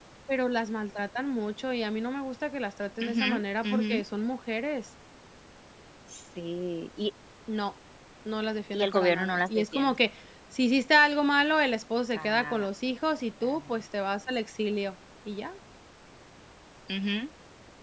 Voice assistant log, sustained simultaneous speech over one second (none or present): present